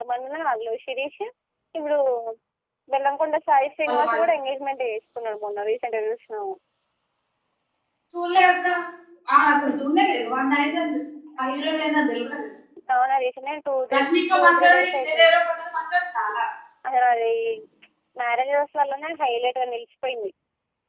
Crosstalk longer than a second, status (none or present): present